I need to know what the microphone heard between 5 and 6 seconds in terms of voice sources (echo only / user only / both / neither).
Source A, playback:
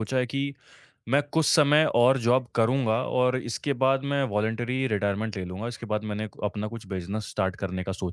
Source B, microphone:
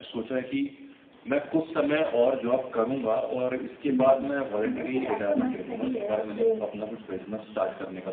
both